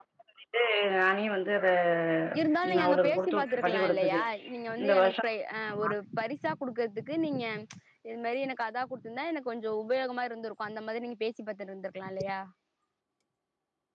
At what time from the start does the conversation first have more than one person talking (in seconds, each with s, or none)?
2.8 s